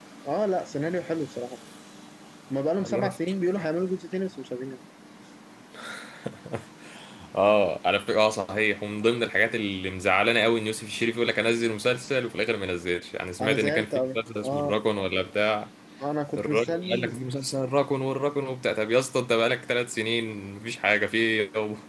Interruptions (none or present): present